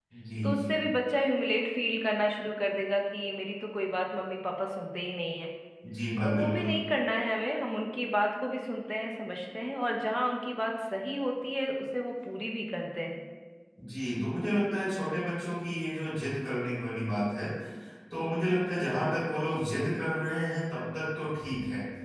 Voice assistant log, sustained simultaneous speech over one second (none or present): none